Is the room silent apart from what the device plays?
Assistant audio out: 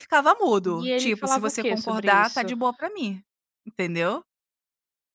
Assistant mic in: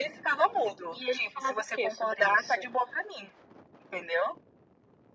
Yes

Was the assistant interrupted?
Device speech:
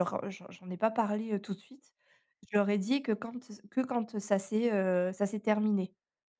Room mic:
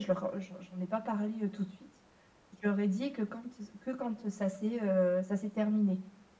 No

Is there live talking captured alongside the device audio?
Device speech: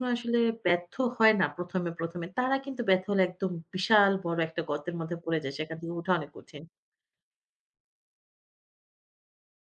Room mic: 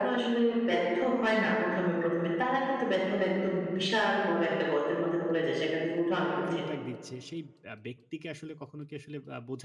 Yes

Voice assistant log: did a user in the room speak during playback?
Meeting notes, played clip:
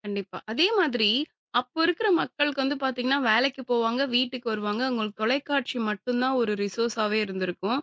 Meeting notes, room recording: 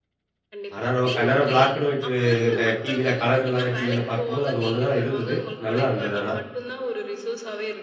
Yes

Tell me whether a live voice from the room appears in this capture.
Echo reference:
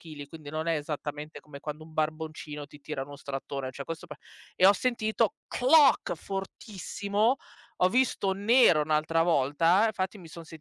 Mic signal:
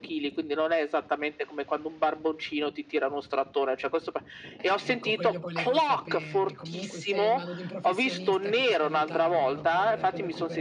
Yes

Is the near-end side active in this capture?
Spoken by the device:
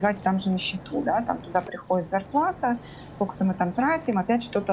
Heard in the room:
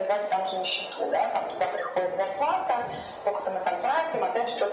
No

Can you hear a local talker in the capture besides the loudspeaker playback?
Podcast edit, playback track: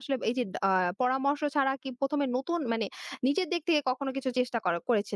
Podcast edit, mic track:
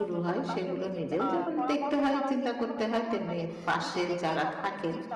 Yes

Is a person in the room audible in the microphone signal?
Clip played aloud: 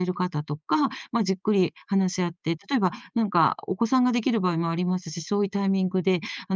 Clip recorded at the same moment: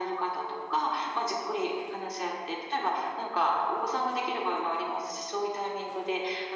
No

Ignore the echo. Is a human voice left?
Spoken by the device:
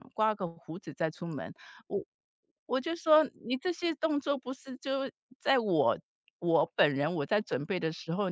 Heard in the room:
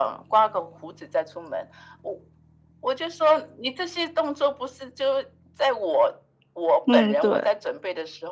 Yes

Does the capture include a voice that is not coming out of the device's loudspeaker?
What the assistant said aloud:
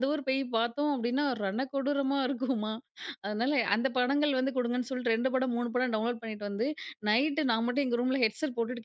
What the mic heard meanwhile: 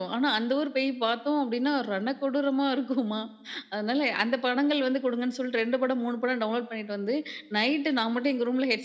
No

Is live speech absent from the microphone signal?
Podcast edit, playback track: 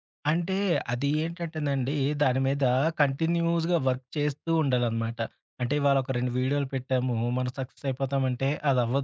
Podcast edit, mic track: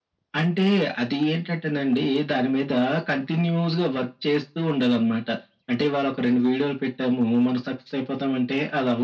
Yes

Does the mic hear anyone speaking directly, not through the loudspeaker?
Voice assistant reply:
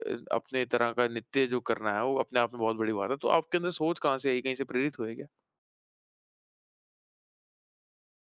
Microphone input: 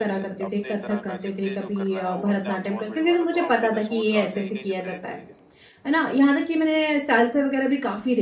Yes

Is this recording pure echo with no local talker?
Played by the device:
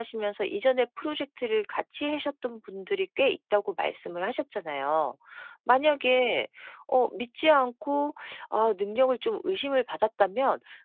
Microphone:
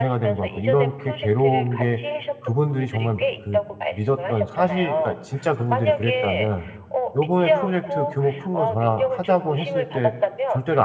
No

